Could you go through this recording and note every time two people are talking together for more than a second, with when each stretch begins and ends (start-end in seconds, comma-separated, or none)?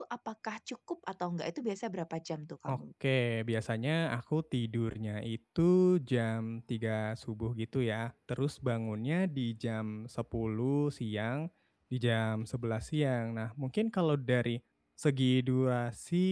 none